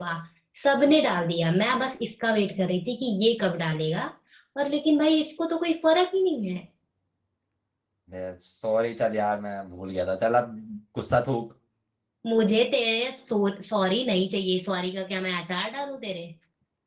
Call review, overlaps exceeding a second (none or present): none